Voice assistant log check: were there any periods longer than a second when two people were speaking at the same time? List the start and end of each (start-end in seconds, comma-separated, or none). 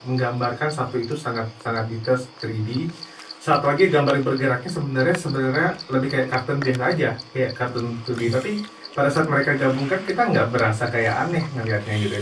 none